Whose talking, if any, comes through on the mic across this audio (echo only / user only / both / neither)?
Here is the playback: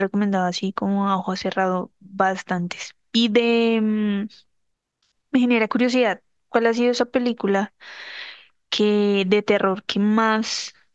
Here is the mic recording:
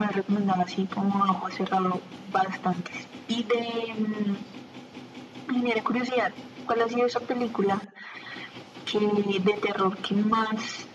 echo only